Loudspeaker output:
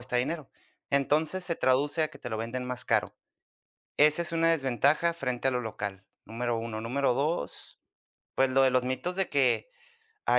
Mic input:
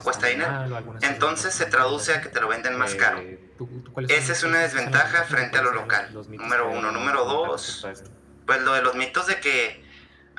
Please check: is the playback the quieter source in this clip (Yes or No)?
No